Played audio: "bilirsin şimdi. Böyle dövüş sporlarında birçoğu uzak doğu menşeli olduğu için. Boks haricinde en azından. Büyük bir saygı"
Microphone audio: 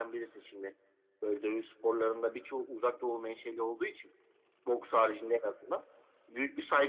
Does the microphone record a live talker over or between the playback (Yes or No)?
No